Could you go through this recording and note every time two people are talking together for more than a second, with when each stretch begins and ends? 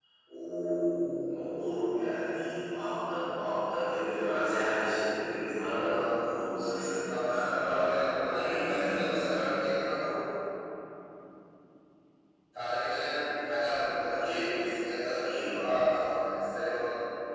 7.2-9.1

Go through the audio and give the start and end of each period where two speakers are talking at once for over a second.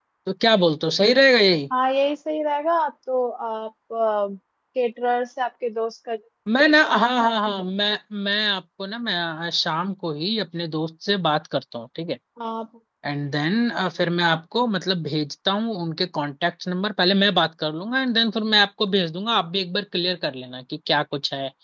none

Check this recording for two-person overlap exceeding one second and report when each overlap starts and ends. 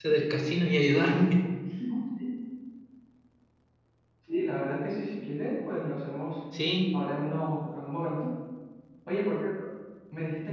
none

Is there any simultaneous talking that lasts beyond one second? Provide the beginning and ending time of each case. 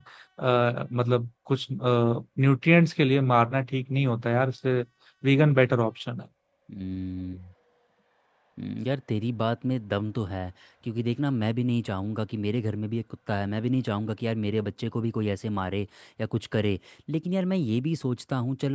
none

